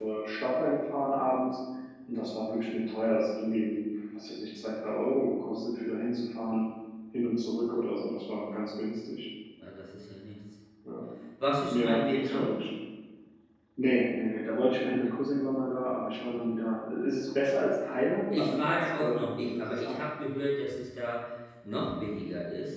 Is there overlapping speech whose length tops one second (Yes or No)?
Yes